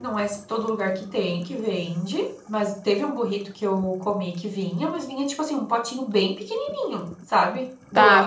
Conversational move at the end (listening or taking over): taking over